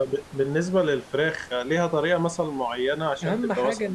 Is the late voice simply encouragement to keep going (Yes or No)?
No